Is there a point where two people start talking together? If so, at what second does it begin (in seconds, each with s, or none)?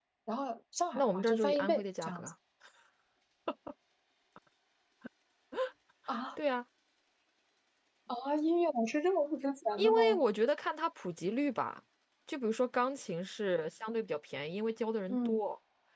0.9 s